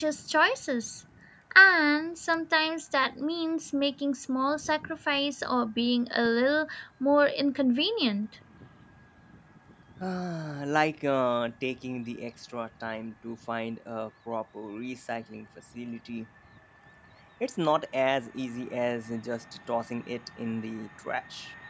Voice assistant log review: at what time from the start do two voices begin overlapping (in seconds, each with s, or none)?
none